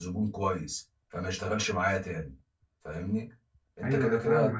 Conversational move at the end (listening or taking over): taking over